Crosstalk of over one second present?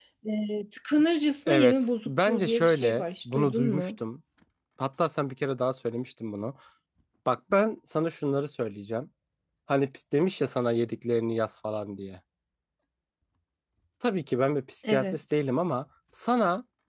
Yes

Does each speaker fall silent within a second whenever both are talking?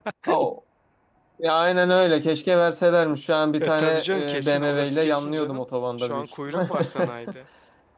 No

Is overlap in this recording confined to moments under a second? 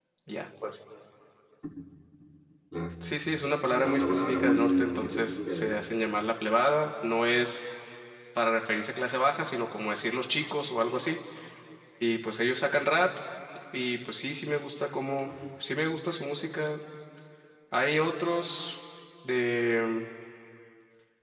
No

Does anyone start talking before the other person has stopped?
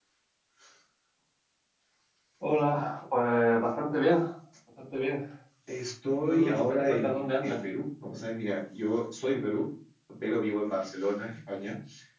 Yes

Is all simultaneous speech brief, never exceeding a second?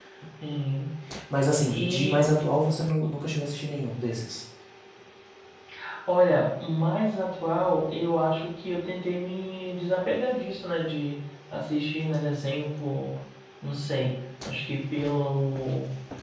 Yes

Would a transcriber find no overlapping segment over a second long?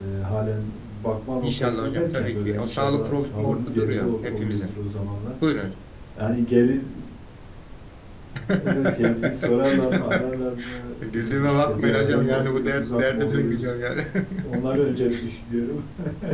No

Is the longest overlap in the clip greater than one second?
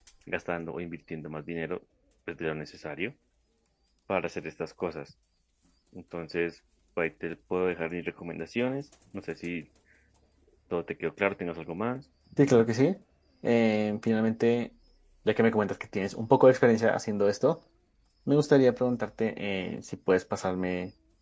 No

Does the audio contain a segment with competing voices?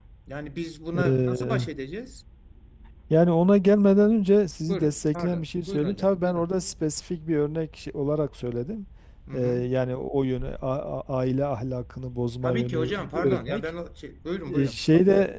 Yes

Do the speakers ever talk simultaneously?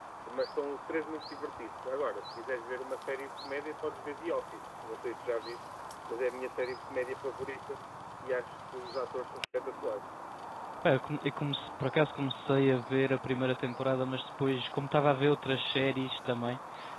No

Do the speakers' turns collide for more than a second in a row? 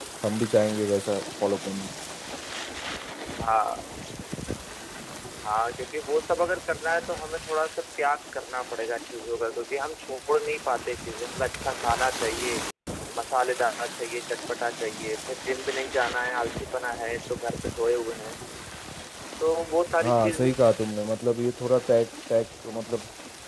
No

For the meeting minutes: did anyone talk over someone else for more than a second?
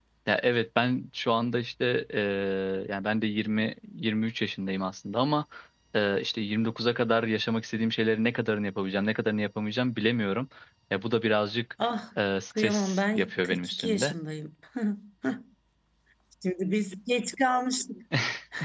Yes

